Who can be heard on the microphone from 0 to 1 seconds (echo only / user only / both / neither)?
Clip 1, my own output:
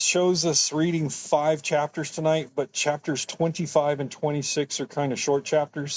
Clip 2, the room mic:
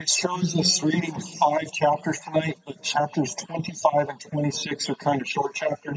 both